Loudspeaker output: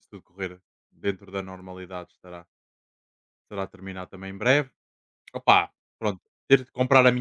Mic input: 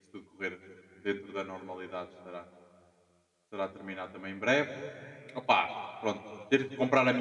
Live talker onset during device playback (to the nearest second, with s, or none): none